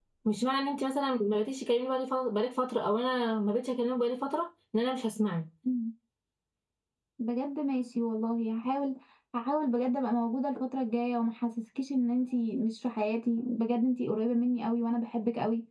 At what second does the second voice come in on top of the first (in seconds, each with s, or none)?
none